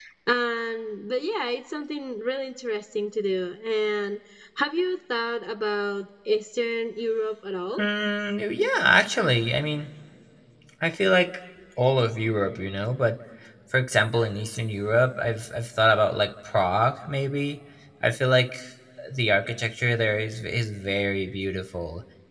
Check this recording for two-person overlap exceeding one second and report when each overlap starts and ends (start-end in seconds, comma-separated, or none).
none